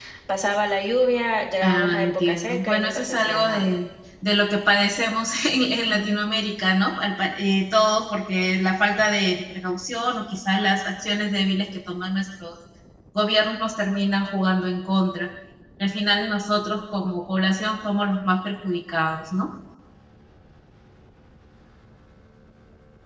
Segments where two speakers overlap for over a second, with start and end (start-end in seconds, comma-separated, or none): 1.6-3.7